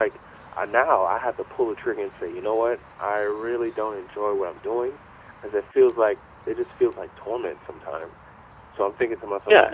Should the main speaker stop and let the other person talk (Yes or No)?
Yes